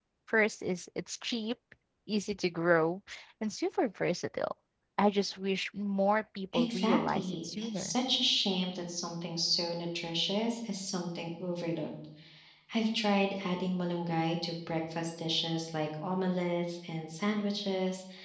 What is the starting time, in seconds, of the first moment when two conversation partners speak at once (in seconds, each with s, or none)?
6.5 s